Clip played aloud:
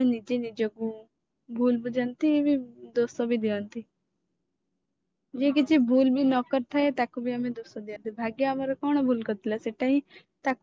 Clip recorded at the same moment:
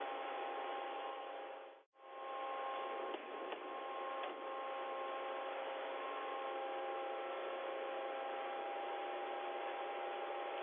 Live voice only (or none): none